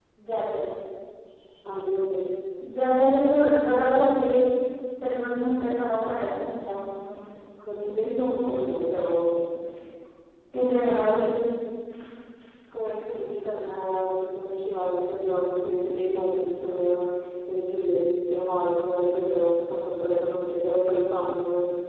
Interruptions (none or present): none